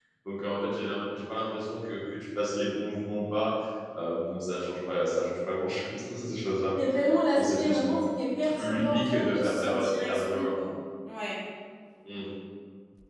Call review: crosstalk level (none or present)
present